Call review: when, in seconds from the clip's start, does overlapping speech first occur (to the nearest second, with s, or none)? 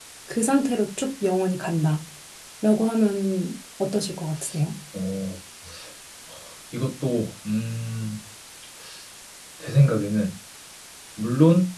none